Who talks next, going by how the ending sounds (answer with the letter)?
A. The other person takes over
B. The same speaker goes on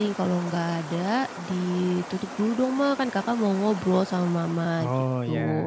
B